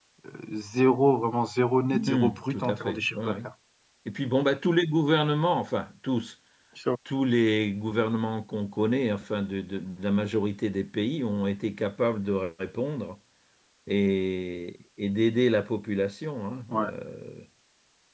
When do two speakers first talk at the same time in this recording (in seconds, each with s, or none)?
1.9 s